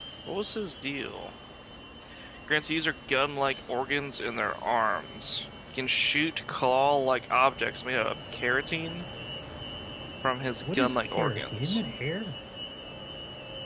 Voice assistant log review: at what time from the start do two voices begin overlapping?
10.6 s

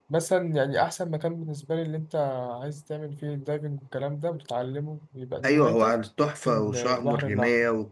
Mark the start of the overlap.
5.4 s

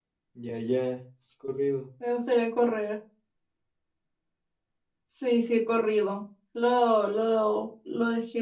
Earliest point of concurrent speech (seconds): none

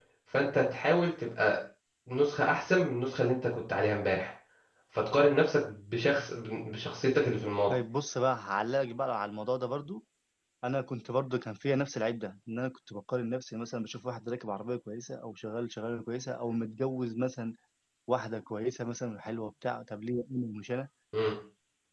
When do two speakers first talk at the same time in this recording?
none

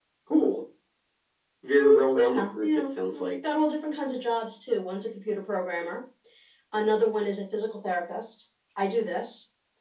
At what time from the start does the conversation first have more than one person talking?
1.8 s

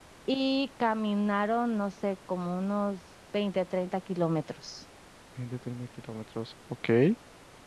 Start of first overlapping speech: none

